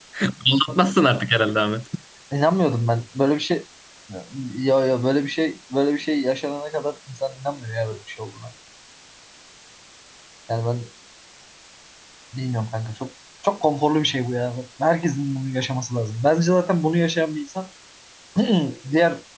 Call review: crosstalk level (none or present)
none